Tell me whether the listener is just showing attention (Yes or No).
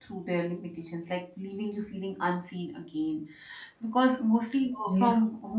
Yes